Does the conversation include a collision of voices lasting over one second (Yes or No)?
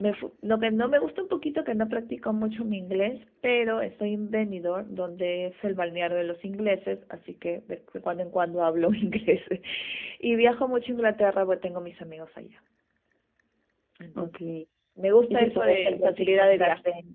Yes